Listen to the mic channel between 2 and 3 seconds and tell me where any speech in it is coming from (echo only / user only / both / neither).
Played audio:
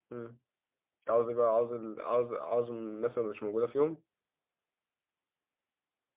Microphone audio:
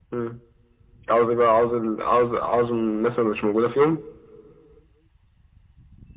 echo only